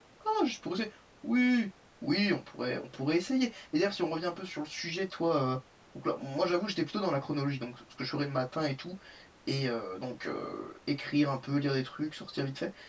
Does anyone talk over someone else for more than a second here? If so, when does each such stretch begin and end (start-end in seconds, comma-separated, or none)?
none